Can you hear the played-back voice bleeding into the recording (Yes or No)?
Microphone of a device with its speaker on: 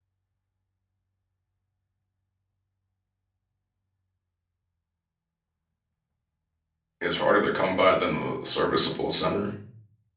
No